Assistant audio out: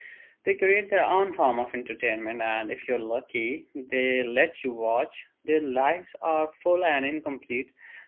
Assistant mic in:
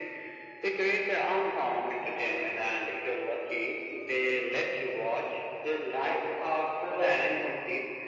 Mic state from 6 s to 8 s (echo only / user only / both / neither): echo only